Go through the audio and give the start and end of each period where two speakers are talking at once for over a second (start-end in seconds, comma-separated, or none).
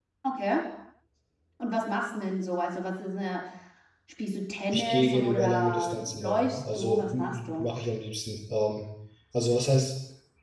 4.7-7.7